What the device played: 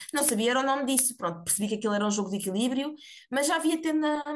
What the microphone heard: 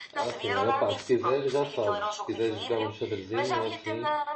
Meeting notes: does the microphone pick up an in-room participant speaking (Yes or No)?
Yes